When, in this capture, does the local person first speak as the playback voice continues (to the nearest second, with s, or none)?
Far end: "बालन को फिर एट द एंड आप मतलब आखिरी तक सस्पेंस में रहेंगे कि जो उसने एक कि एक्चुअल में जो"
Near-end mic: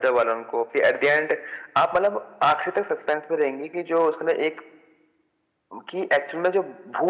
none